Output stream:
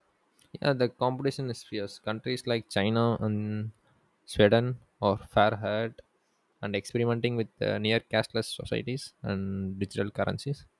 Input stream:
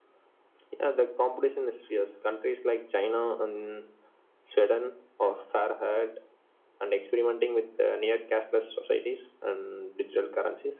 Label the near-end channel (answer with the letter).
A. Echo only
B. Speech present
A